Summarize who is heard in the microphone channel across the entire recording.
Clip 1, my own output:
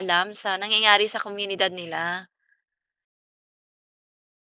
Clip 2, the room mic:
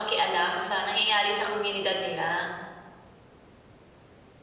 echo only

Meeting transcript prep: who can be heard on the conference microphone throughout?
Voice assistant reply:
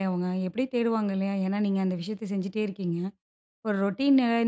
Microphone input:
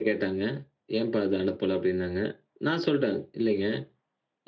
user only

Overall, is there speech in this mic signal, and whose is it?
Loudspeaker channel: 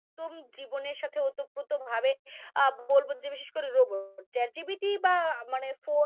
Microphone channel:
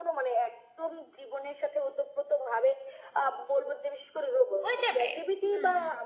both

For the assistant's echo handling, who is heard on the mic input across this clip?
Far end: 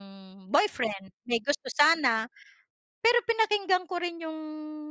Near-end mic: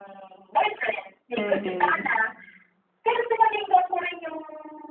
both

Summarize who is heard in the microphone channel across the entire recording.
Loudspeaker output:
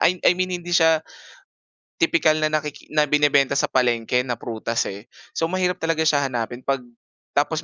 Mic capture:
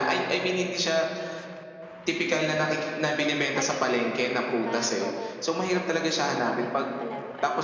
both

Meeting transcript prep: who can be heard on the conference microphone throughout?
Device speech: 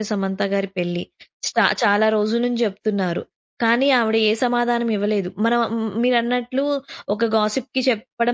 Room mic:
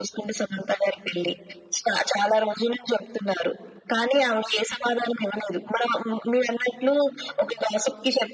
echo only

